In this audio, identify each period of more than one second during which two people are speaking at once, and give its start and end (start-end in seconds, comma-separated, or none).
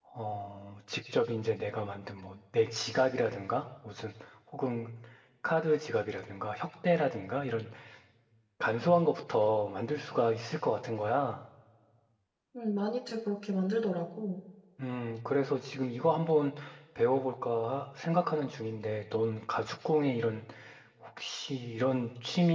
none